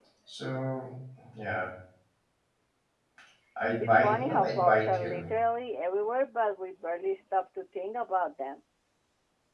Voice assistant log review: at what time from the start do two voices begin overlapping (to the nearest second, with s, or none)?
4 s